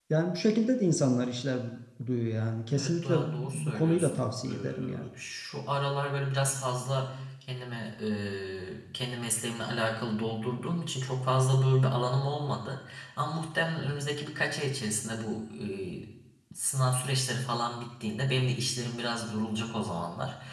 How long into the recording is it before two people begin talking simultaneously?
3 s

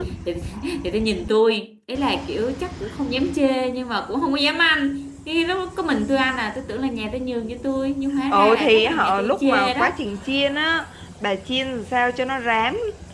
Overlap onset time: 8 s

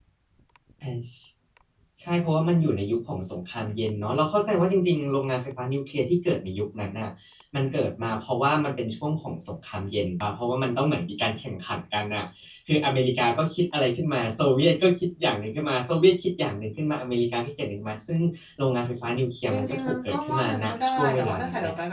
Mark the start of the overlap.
19 s

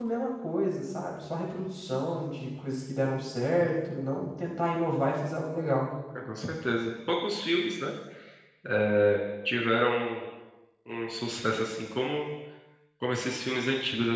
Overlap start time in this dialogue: none

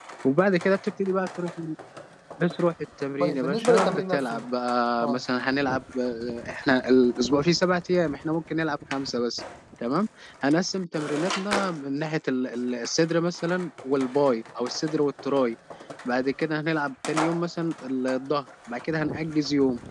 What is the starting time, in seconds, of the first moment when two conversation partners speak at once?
3 s

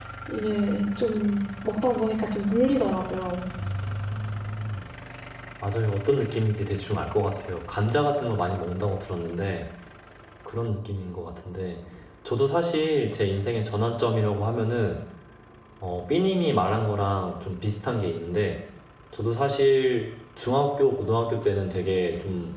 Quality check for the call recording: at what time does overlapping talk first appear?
none

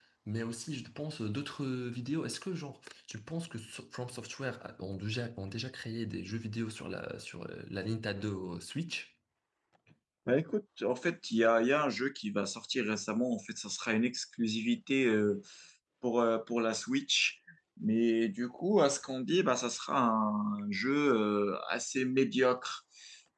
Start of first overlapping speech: none

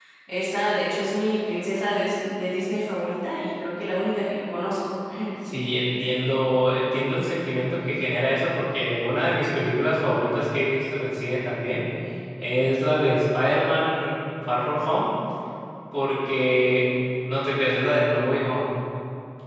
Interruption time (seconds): none

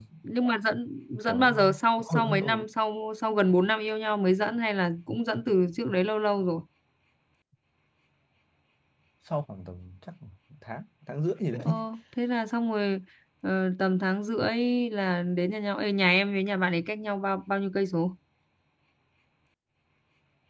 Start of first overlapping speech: 1 s

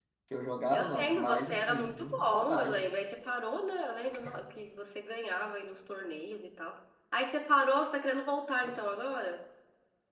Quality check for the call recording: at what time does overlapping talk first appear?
1 s

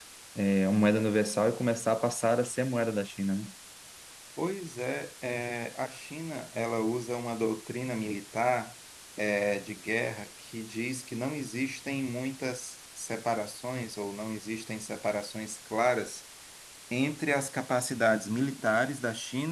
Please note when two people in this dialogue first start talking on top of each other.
none

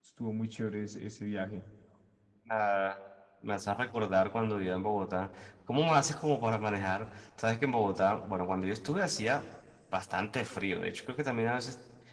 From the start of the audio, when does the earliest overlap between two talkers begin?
none

